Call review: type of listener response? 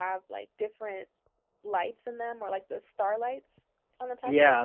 taking over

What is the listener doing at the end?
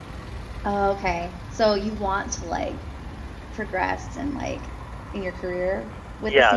taking over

